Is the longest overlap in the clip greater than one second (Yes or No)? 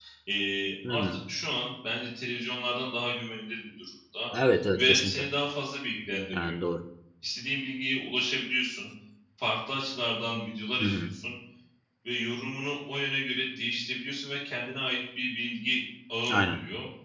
No